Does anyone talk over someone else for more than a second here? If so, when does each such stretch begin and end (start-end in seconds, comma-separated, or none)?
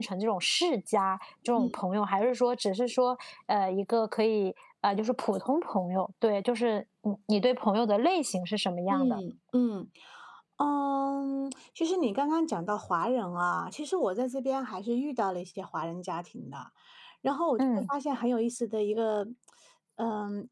none